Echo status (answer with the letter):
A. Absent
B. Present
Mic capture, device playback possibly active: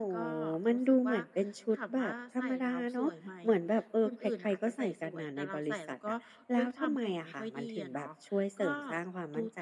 B